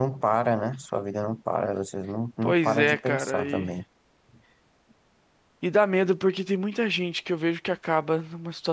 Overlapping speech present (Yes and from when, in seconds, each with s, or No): Yes, from 2.4 s